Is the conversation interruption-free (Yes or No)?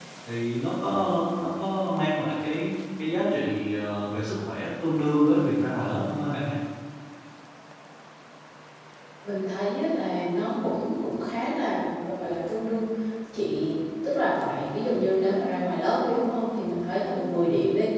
Yes